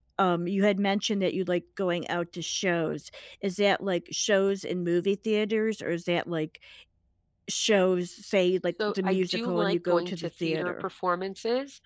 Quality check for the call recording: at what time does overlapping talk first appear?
9 s

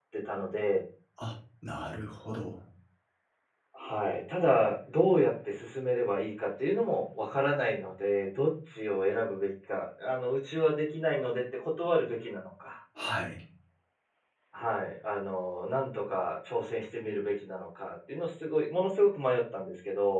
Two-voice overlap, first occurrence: none

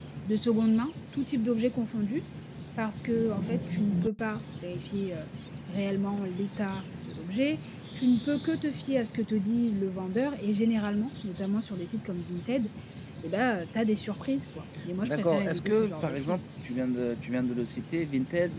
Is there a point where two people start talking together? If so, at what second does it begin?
15 s

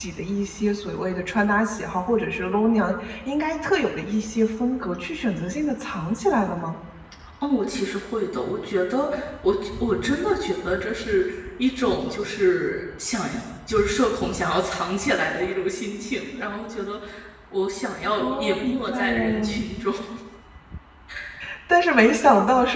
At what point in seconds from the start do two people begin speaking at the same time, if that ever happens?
18 s

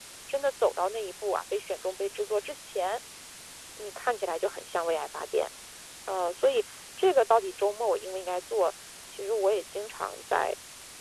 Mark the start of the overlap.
none

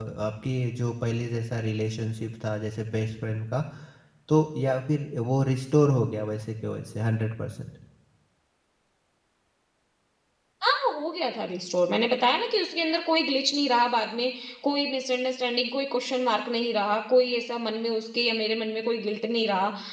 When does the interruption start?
none

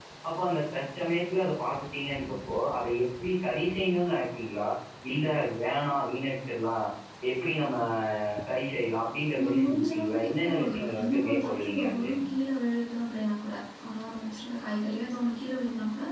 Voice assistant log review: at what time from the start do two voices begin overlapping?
9 s

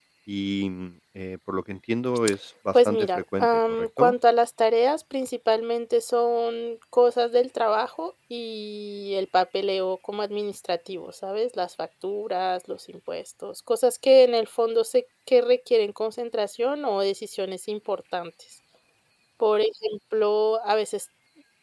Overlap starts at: 3 s

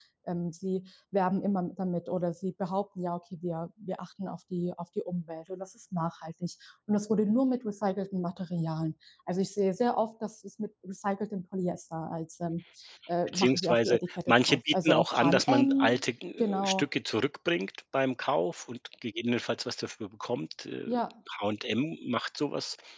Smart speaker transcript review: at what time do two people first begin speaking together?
13 s

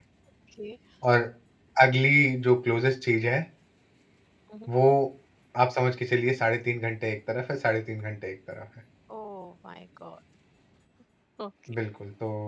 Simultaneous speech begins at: none

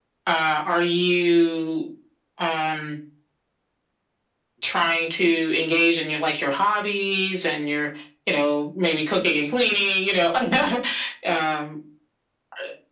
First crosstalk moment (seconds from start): none

